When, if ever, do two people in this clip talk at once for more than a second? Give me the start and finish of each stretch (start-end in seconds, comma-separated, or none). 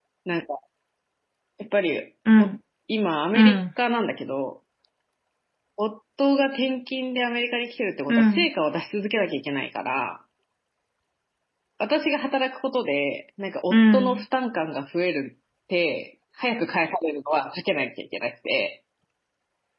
none